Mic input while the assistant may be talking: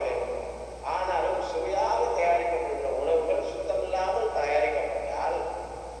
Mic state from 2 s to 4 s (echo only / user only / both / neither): echo only